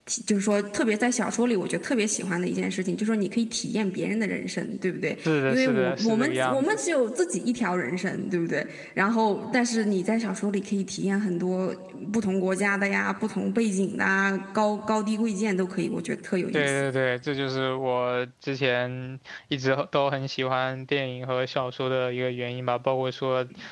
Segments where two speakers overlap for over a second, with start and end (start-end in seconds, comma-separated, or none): 5.2-6.8